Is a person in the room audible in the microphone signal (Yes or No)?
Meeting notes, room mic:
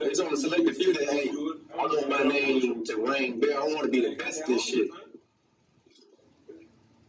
Yes